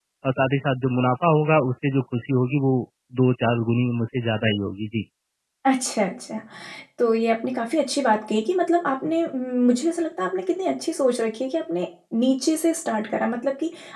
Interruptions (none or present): none